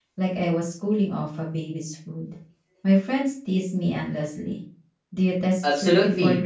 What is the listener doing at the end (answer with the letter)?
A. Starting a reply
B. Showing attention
A